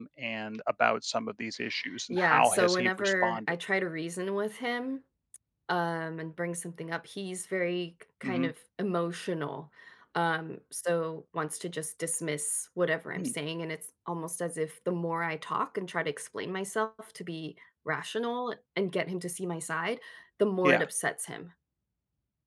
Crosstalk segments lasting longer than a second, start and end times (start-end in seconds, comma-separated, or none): 2.1-3.5